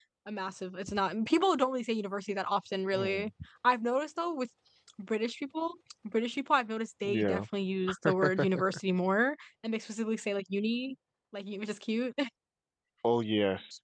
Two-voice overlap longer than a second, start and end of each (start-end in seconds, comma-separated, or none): none